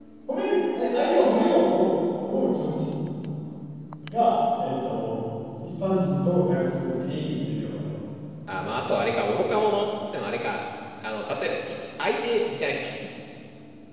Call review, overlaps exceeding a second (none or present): none